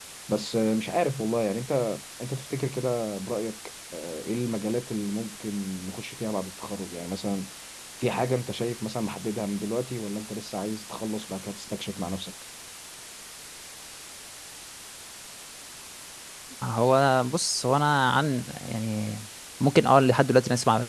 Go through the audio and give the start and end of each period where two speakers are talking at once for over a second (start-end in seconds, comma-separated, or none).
none